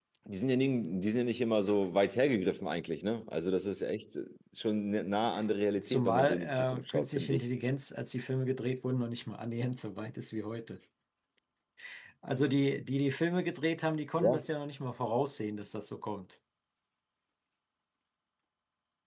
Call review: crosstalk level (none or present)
present